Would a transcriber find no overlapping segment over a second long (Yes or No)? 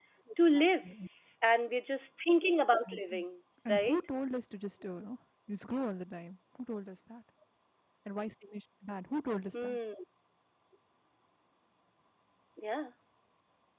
Yes